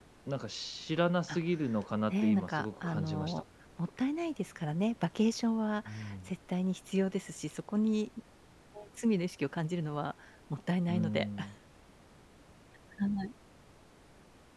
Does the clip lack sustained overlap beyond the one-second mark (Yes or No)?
No